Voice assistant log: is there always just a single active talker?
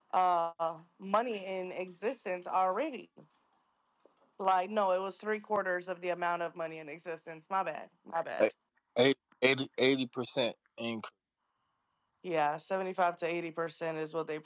Yes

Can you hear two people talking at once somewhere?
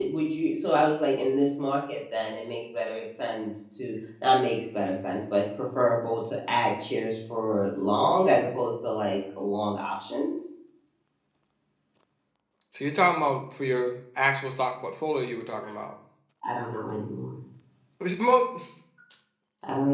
No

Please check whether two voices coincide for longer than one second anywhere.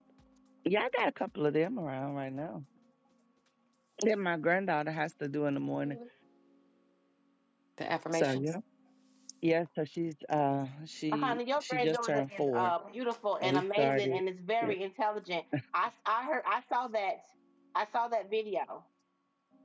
Yes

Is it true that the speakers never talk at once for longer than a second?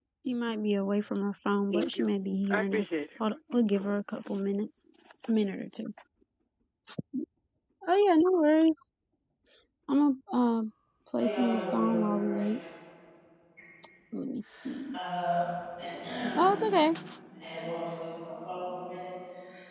No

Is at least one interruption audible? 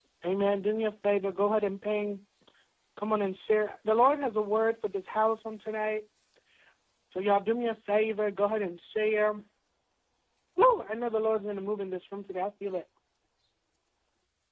No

